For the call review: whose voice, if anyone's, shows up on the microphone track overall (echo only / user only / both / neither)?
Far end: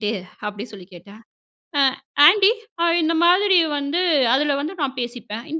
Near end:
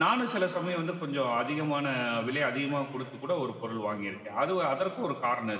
user only